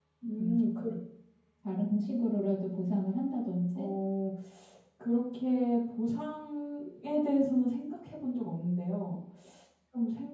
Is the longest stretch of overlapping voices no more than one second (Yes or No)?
Yes